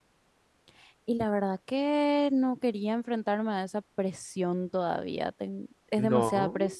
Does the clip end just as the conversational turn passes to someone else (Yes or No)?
No